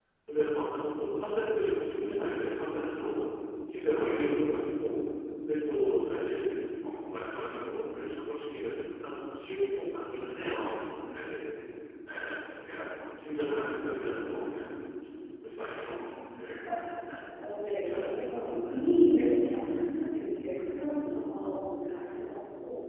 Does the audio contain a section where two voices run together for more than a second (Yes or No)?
Yes